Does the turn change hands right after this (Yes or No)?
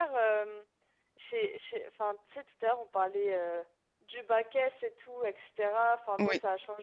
No